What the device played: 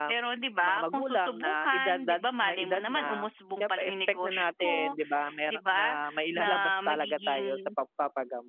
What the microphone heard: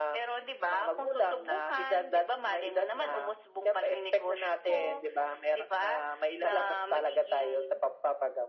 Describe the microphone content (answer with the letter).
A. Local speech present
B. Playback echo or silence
B